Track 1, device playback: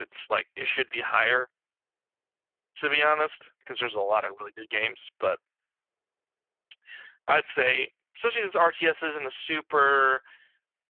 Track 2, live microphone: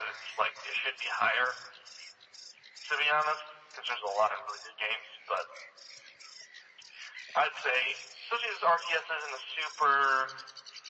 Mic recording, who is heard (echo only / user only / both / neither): echo only